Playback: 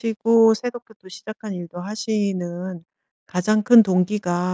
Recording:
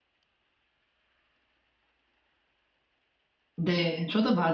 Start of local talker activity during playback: 3.5 s

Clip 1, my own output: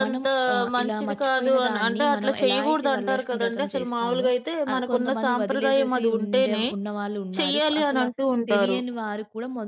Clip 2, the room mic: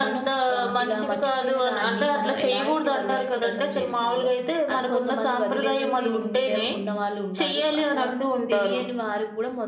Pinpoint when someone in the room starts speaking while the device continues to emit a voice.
none

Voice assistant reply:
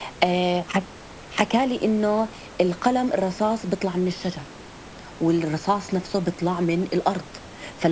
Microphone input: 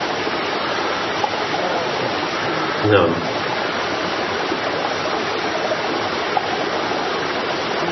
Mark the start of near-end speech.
2.8 s

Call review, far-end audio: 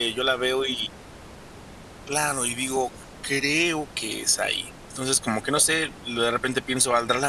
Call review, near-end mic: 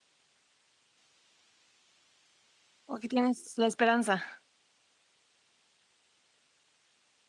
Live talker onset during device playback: 2.9 s

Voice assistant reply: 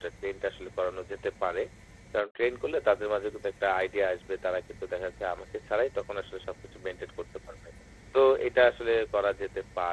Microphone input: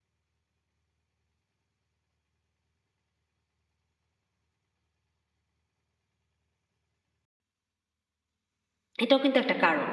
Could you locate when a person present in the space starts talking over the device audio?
9.0 s

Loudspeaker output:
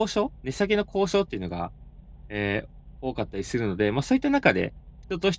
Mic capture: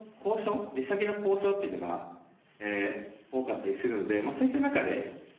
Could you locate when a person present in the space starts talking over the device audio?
none

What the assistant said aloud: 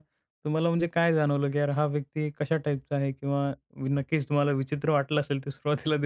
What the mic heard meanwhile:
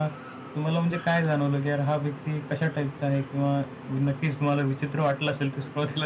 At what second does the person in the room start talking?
none

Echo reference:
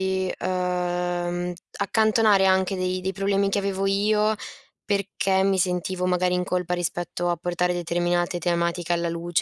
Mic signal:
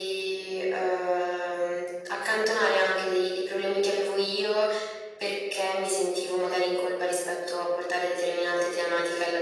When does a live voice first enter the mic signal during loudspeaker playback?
none

